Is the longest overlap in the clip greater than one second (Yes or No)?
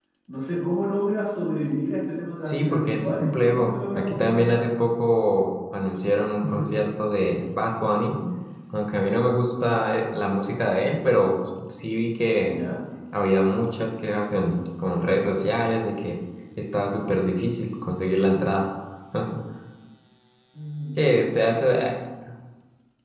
Yes